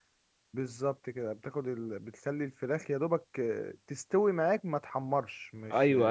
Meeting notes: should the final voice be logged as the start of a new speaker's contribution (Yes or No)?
Yes